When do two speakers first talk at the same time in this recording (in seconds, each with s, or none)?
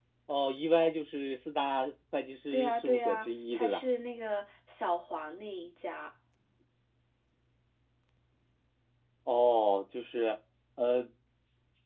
2.5 s